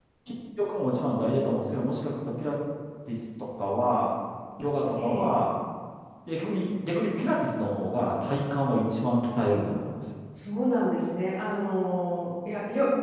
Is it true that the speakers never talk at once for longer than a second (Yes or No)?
Yes